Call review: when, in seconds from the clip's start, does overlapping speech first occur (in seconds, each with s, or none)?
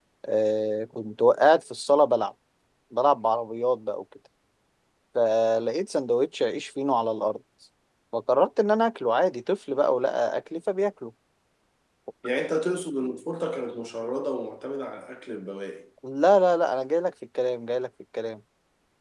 none